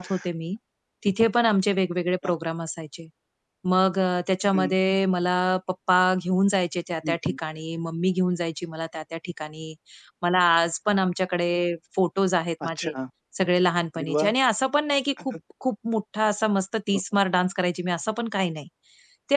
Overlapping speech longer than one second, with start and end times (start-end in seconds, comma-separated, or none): none